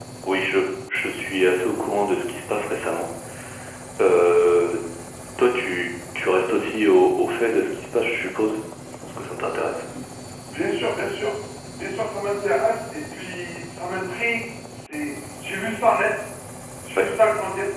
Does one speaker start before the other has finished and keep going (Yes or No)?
No